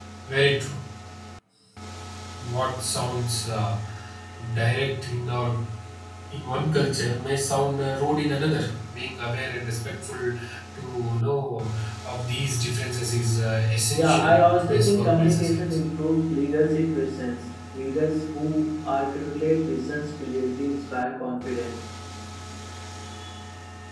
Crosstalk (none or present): present